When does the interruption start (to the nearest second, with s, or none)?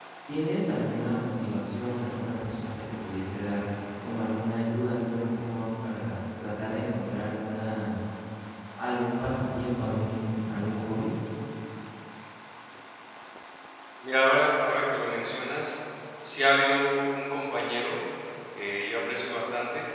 none